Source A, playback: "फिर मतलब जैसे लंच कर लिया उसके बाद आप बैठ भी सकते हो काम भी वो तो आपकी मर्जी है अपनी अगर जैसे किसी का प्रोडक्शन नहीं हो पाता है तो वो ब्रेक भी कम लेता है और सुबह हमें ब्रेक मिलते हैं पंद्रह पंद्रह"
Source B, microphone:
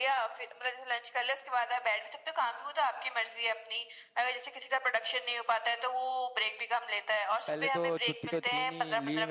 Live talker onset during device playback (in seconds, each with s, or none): 7.5 s